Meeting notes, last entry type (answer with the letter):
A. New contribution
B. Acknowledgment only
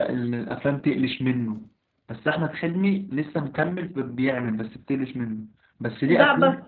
A